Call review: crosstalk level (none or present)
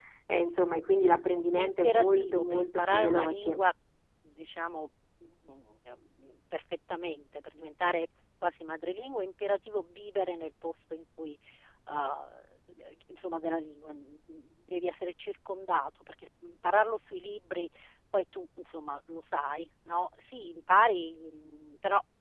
present